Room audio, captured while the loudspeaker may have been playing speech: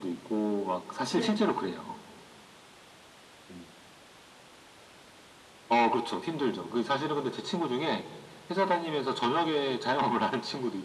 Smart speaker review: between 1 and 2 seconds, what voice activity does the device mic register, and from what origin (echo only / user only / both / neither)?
both